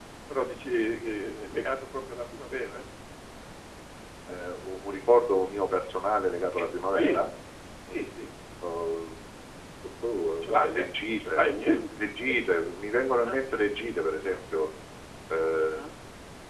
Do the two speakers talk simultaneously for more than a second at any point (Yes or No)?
Yes